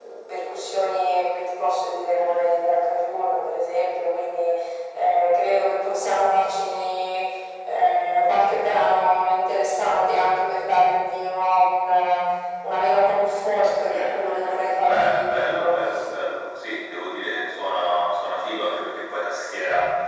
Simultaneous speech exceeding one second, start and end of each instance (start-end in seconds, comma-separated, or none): 13.8-15.8